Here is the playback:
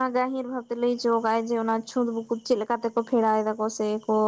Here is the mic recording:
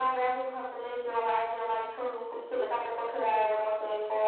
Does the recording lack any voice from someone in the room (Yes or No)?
Yes